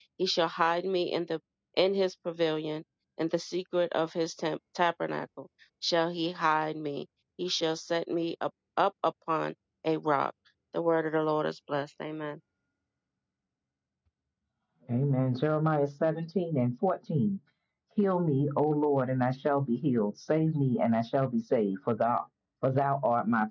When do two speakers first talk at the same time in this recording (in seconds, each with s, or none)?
none